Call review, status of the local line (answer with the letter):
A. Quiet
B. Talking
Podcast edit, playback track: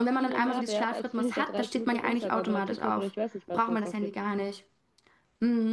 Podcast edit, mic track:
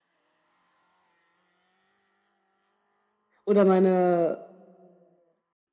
B